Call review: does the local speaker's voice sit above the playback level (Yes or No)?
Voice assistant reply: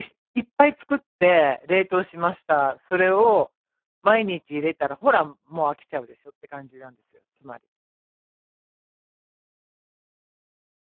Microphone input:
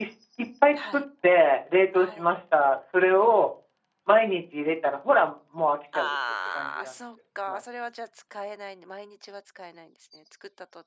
No